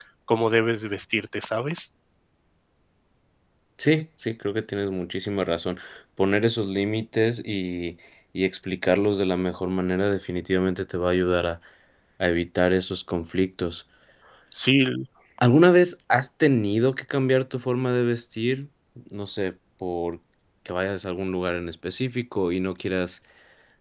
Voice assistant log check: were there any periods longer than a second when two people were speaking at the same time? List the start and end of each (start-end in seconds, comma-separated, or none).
none